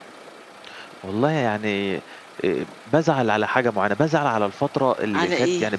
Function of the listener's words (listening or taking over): listening